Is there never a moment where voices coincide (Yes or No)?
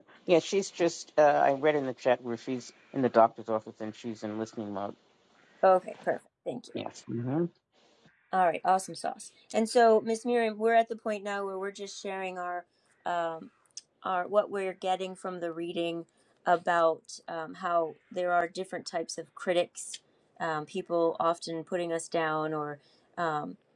Yes